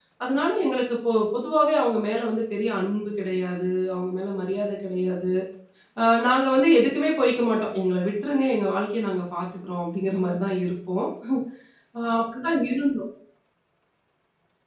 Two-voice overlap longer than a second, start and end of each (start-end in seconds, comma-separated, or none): none